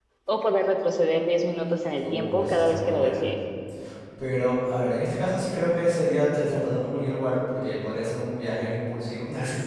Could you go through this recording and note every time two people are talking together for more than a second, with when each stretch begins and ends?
2.0-3.3

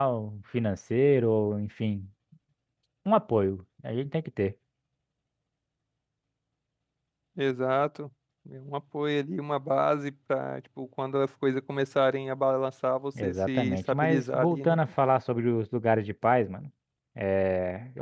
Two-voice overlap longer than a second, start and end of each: 13.2-14.8

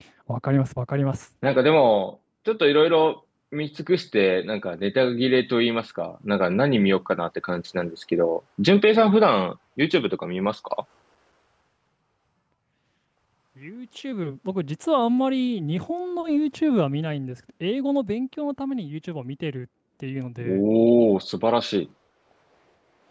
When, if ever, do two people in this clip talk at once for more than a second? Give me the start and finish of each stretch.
none

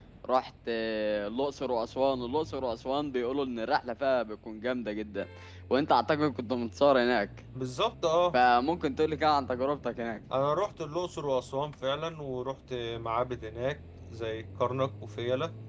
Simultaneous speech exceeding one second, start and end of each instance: none

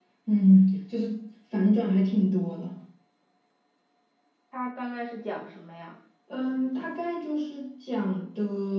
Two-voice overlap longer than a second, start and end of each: none

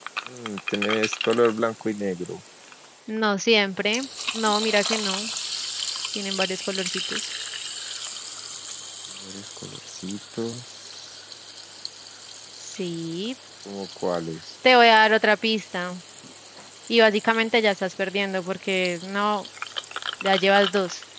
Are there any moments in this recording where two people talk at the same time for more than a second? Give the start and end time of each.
none

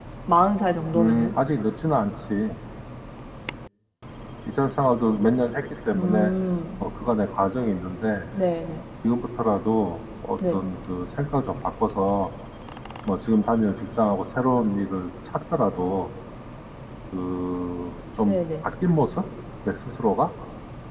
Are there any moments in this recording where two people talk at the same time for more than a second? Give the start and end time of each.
none

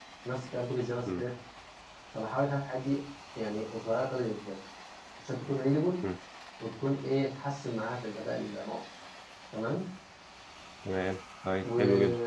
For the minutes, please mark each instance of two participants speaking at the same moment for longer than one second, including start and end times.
none

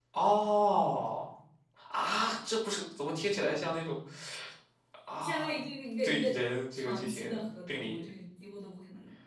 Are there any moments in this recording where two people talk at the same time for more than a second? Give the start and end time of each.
6.8-8.0

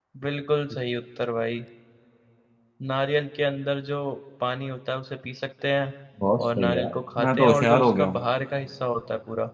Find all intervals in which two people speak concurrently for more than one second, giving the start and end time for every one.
6.6-8.2

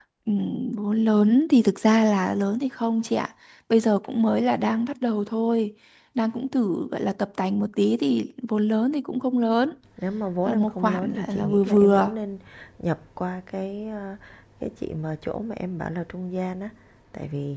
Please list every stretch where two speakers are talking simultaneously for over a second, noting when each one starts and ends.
10.4-12.2

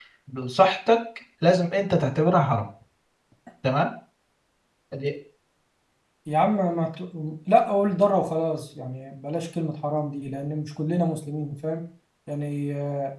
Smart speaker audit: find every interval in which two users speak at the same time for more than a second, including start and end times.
none

